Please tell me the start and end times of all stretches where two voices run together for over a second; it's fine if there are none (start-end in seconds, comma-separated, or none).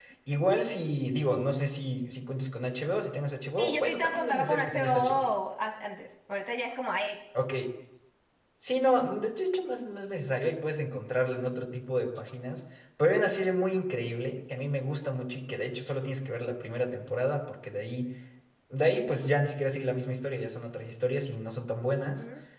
3.6-5.2